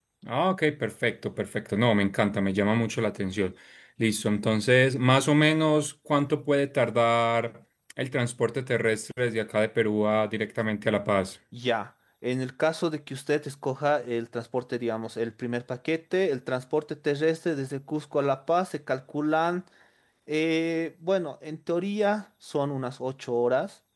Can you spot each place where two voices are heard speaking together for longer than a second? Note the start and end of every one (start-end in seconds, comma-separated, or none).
none